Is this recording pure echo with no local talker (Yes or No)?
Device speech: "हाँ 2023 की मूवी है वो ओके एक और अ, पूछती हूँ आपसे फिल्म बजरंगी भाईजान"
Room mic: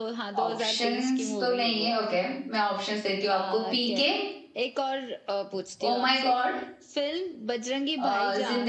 No